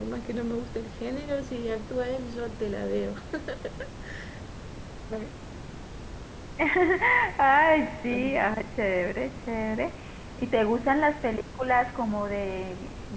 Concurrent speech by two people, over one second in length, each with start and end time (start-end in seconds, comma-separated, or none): none